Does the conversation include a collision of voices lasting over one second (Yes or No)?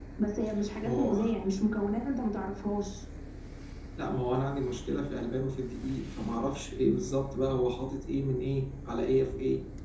No